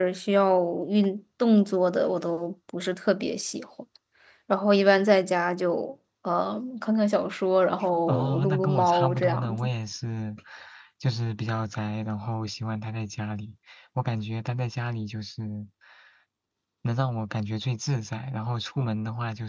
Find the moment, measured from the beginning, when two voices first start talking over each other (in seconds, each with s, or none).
8.1 s